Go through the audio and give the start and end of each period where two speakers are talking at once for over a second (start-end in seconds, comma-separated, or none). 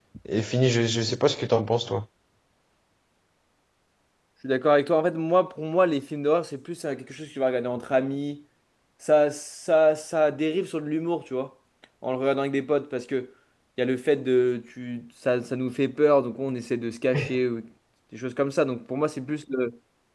none